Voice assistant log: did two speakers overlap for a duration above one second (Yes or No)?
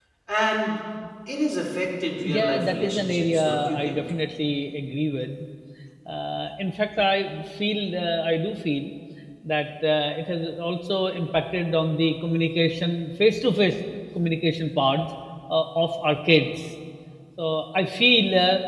Yes